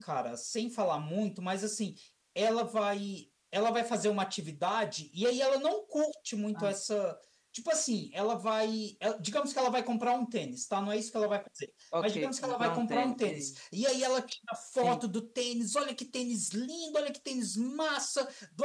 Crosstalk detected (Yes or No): Yes